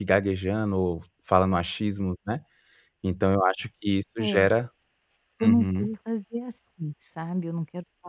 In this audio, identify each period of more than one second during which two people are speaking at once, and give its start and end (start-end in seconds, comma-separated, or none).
none